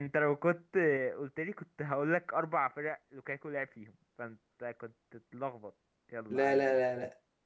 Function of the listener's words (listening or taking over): taking over